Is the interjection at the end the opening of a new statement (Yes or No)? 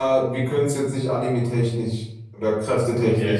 No